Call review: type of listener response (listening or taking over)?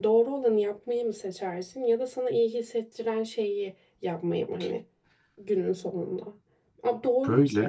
listening